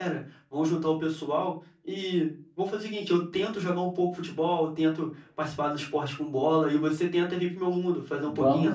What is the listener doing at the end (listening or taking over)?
taking over